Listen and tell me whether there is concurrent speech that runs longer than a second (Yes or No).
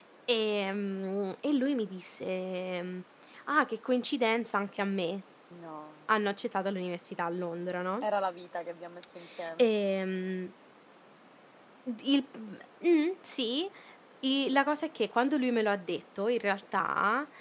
No